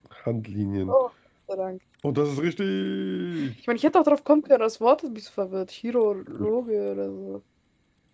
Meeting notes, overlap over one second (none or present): none